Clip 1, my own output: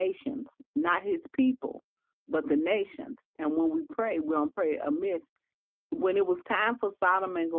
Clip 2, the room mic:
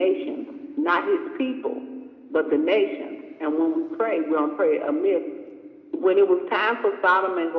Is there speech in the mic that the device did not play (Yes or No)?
No